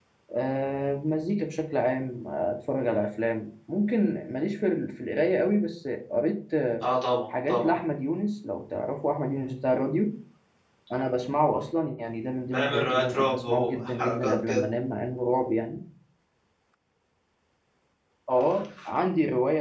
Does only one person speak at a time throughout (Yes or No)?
No